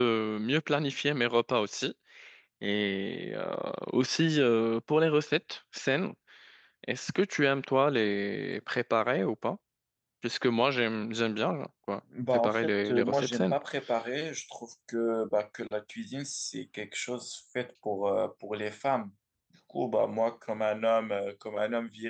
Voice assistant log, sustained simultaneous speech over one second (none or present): present